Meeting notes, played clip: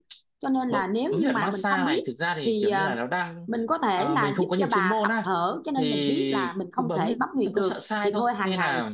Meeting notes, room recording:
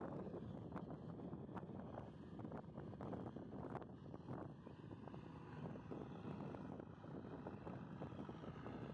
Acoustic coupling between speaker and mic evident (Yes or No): No